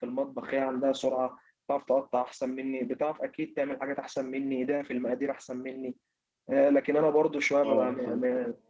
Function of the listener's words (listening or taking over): listening